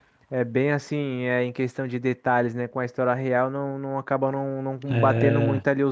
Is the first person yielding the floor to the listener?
No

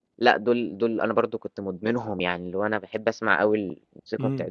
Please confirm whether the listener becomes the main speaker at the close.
No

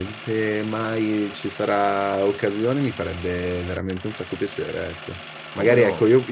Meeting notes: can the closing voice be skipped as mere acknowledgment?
Yes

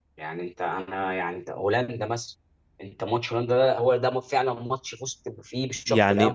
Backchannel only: No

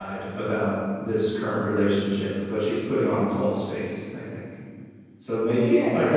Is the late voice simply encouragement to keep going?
No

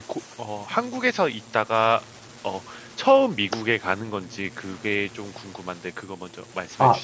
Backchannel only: No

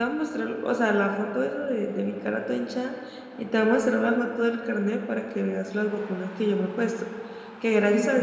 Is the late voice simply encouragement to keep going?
Yes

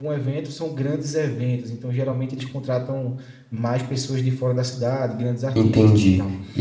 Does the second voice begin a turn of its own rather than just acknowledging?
Yes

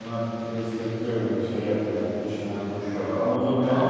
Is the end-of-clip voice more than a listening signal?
Yes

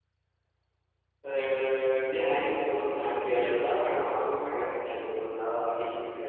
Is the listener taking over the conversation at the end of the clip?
Yes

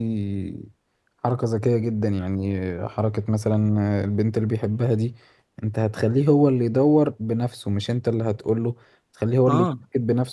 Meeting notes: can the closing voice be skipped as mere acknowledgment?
Yes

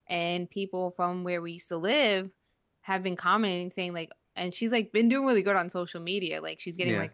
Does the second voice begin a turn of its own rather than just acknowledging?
No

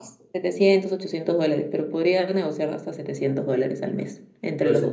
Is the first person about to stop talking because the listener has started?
Yes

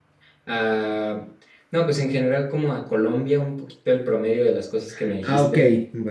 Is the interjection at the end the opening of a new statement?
Yes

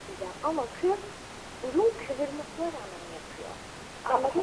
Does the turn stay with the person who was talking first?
Yes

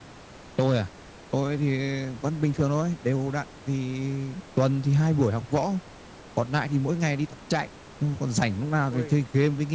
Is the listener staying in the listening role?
Yes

